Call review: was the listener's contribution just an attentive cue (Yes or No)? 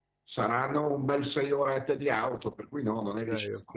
No